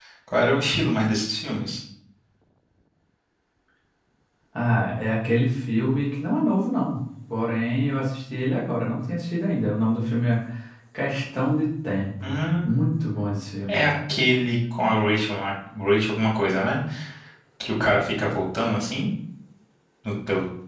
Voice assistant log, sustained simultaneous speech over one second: none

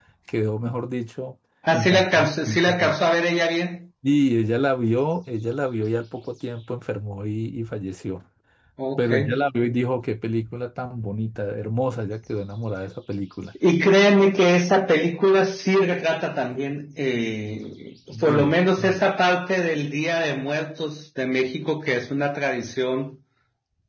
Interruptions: present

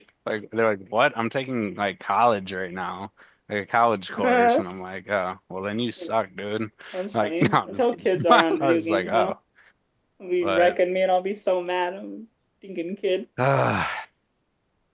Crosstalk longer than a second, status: present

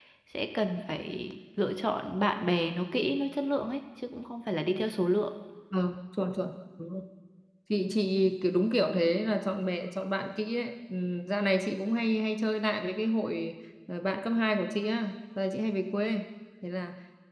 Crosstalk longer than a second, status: none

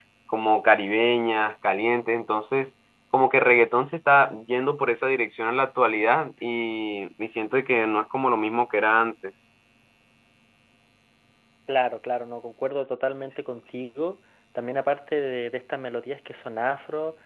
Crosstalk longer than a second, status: none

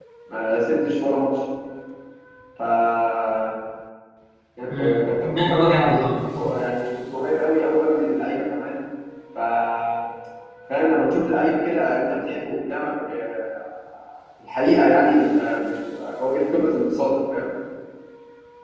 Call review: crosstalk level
present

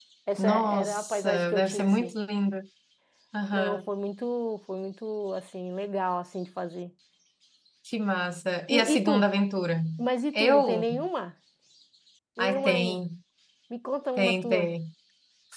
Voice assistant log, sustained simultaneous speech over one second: present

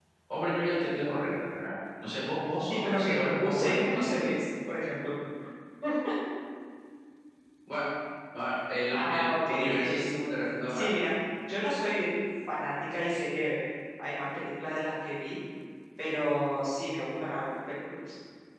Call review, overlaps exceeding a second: present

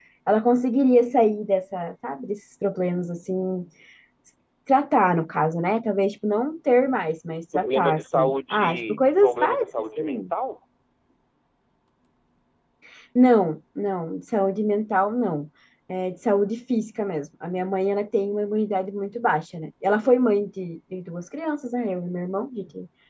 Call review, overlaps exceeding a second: present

